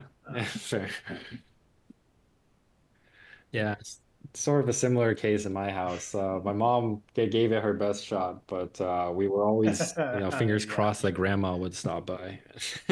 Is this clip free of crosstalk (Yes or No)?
No